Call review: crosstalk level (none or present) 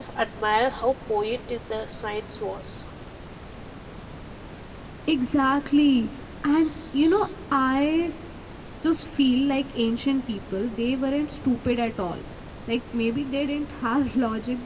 none